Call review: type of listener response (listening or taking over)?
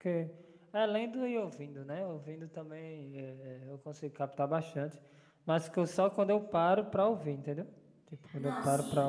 listening